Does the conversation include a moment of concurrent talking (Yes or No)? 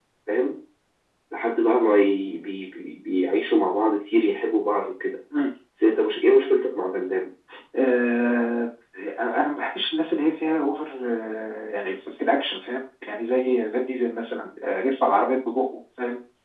No